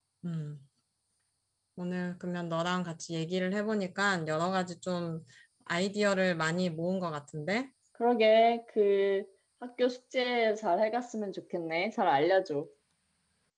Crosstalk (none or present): none